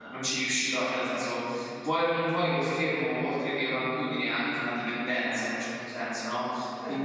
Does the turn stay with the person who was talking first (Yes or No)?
No